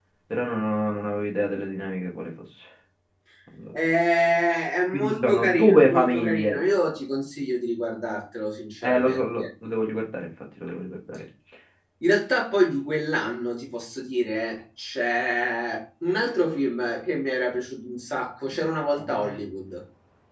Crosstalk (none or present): present